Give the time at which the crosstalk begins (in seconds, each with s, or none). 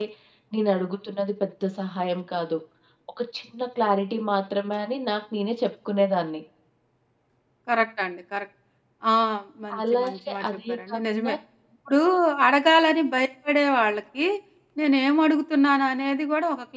9.9 s